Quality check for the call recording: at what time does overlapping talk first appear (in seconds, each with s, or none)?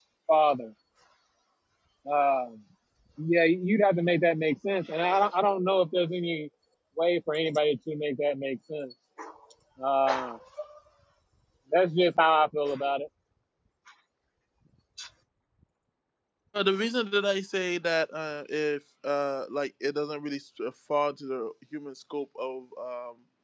none